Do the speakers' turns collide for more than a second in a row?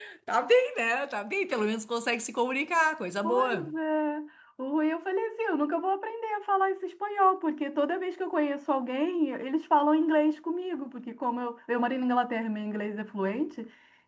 No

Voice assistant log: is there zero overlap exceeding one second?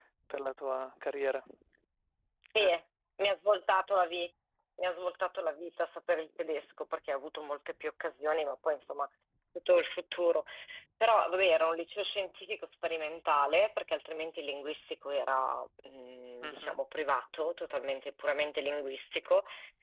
Yes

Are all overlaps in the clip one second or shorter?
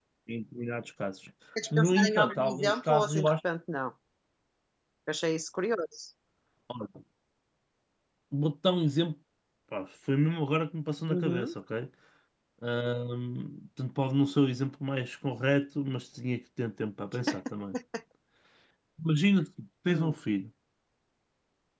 No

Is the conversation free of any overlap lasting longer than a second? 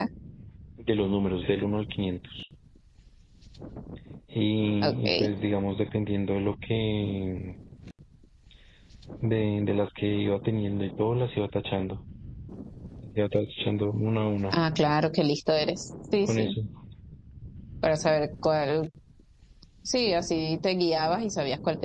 Yes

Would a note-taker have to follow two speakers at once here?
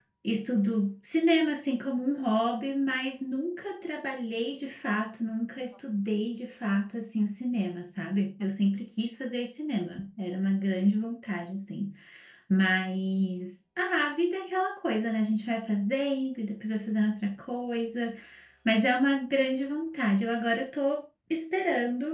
No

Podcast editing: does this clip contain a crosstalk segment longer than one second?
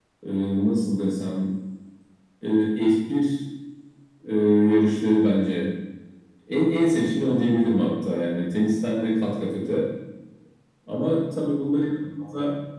No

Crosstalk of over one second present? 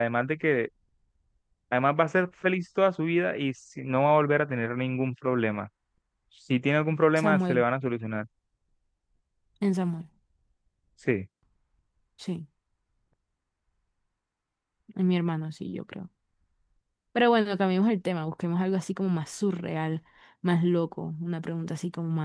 No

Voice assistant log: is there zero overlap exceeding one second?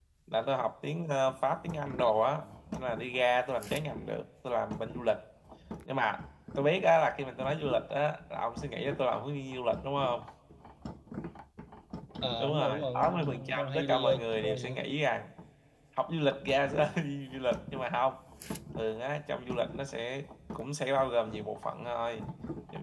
No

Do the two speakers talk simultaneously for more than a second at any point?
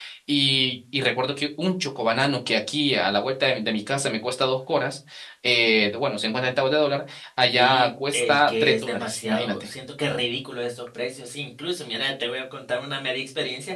Yes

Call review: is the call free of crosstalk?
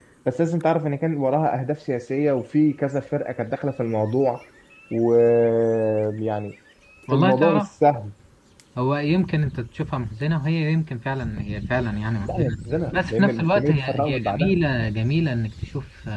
No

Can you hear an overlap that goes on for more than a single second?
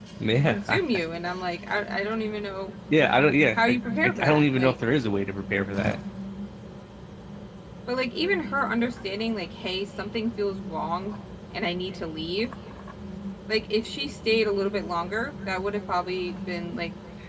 Yes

